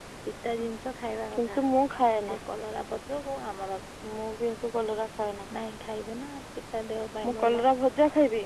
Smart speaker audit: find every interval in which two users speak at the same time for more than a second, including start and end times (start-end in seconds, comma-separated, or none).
none